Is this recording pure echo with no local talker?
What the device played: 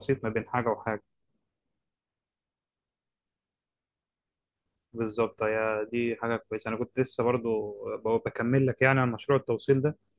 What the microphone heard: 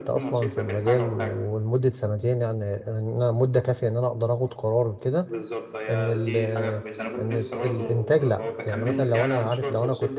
No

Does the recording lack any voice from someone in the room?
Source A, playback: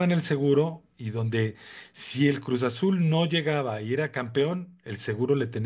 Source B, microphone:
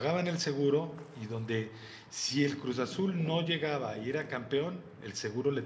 Yes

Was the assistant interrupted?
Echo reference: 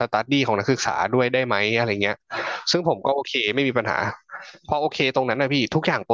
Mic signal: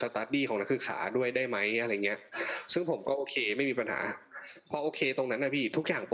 No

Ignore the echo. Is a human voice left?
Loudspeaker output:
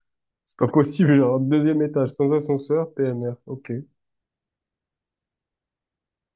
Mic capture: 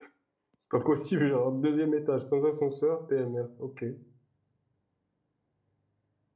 No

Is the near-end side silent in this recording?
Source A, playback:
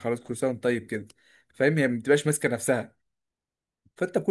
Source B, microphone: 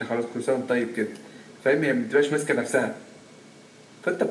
Yes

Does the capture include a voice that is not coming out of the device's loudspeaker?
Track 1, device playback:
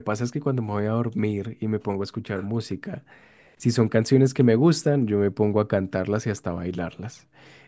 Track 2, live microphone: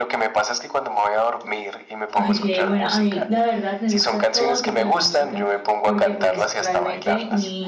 Yes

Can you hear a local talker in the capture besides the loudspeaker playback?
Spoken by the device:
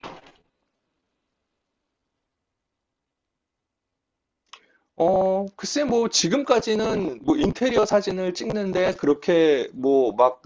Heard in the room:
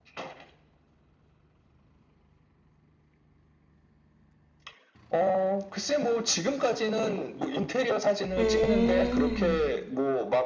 Yes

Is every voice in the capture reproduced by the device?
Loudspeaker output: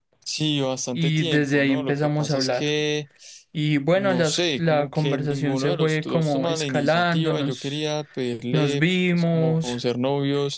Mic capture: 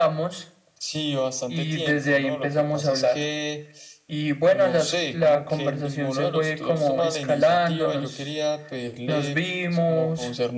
Yes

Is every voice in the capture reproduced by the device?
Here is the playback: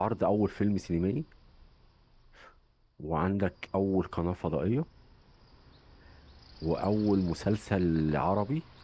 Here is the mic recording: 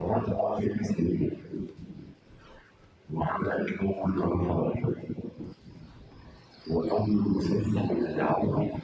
Yes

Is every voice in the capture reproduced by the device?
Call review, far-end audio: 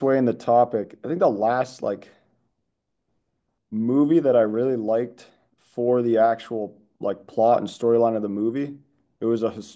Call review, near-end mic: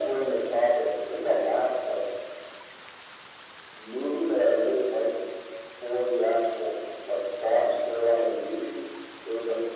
Yes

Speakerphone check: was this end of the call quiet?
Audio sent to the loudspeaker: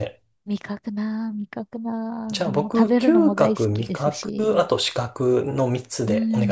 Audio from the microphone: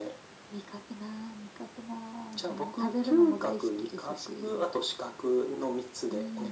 Yes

